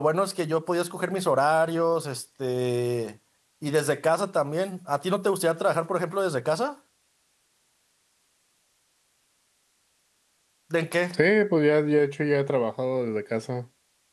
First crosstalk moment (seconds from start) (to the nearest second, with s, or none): none